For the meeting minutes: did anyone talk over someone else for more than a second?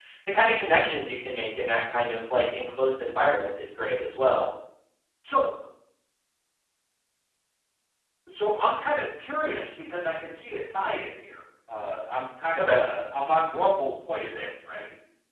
No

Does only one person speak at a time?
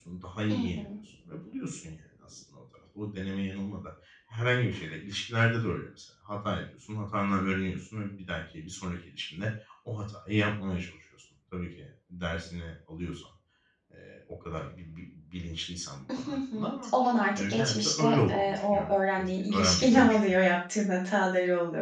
No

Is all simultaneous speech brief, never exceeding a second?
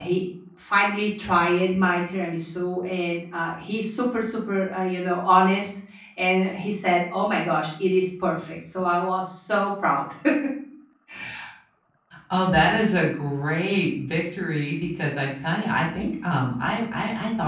Yes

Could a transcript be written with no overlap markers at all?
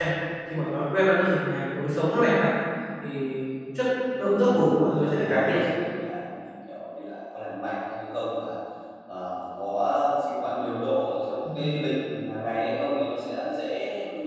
No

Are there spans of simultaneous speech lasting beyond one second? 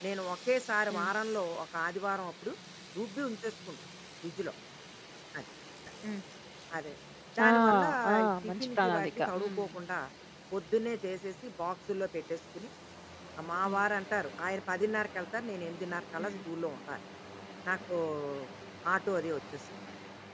Yes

